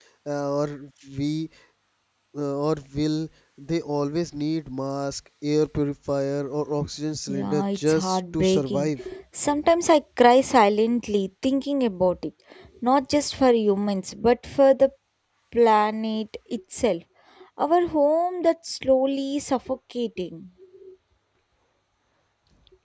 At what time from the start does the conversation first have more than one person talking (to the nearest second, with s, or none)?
7 s